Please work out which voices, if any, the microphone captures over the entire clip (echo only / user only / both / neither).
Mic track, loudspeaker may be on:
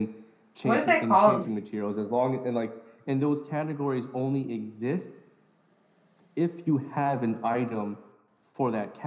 both